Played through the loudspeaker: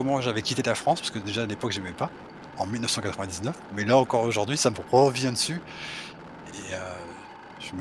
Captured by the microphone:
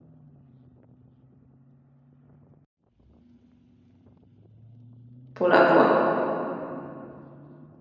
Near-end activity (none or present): present